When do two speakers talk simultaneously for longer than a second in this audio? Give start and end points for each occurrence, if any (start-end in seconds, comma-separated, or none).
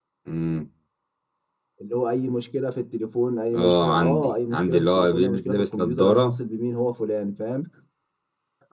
3.5-6.4